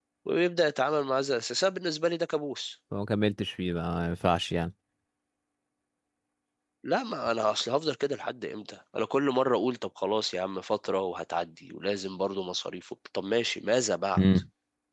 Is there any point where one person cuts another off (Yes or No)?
No